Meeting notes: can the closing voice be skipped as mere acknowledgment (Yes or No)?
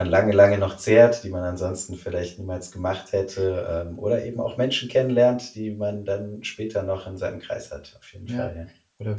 No